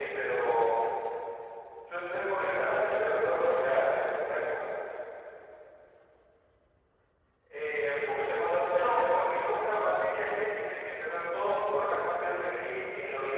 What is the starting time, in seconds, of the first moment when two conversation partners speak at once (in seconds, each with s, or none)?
2.4 s